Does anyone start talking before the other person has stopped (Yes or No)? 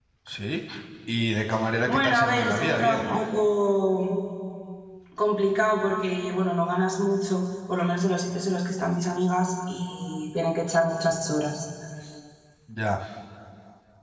Yes